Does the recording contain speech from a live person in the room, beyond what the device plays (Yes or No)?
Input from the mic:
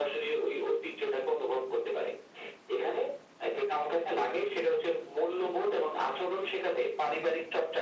No